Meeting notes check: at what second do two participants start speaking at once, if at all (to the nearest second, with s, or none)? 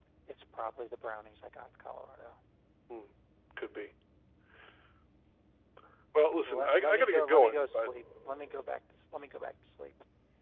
6 s